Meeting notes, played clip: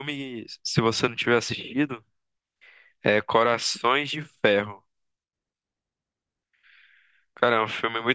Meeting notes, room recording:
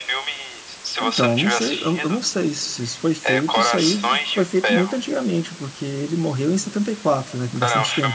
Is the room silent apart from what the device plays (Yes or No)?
No